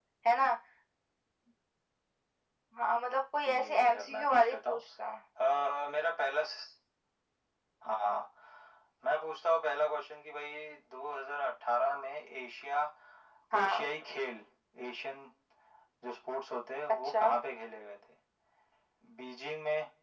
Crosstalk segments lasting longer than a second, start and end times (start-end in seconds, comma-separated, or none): 3.5-4.8